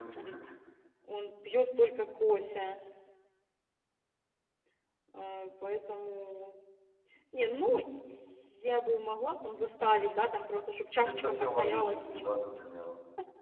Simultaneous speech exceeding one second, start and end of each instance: 11.0-12.3

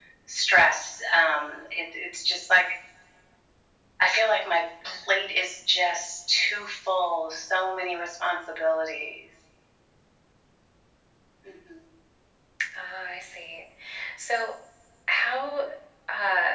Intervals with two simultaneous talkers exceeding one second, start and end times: none

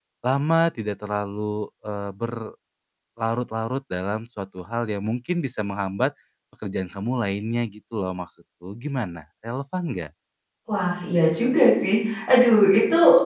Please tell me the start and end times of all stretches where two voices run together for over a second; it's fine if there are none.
none

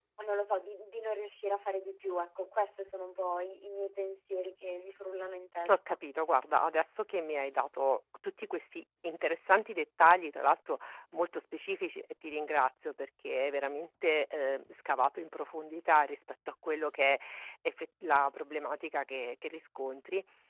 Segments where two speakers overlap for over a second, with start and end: none

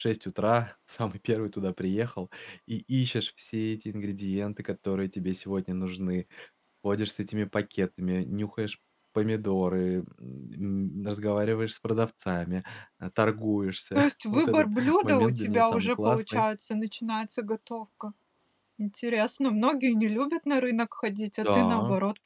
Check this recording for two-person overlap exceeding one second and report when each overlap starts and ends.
14.0-16.4

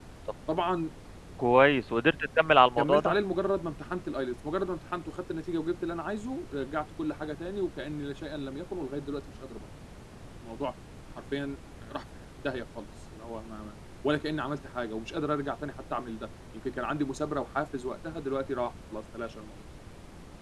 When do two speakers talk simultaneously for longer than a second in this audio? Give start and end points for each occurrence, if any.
none

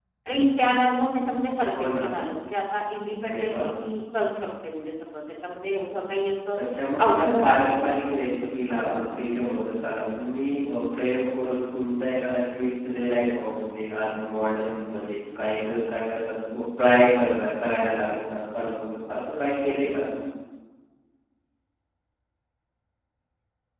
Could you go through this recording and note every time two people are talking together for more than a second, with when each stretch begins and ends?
7.0-9.0

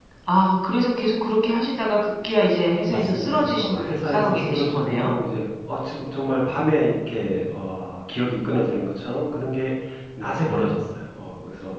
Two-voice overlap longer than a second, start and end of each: 2.8-5.1

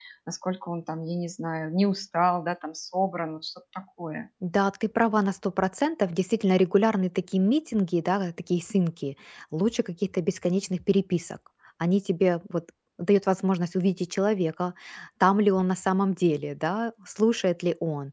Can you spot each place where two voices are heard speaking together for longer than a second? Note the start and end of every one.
none

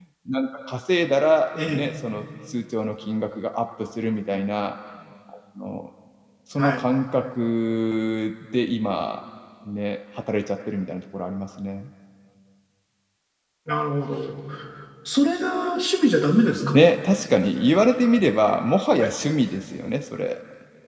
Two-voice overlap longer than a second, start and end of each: none

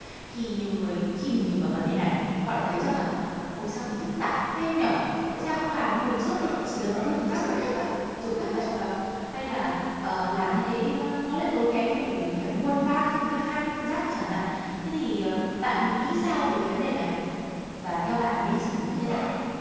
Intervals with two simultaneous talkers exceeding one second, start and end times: 6.4-7.6

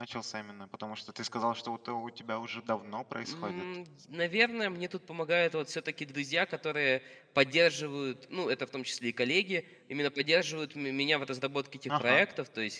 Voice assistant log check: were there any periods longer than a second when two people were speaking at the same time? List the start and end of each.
none

